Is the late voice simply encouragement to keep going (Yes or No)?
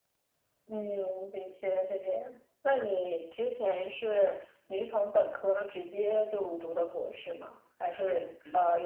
Yes